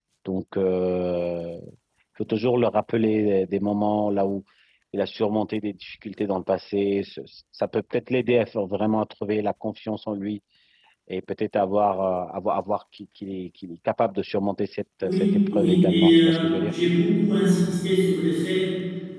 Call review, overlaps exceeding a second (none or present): present